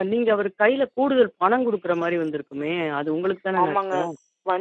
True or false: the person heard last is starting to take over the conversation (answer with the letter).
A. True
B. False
A